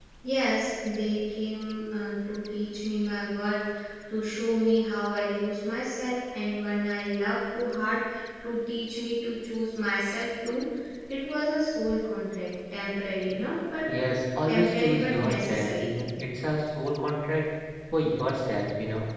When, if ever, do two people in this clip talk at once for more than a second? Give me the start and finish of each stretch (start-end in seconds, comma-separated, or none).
14.5-16.0